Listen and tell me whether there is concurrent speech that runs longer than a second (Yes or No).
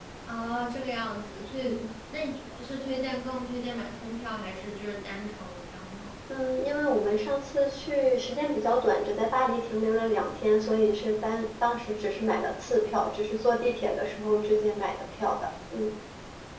No